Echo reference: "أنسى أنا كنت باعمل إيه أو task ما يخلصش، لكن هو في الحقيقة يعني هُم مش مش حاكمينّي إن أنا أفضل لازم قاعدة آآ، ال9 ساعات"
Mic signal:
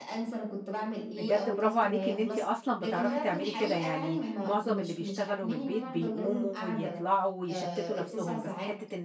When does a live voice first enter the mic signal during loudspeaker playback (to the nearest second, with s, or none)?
1 s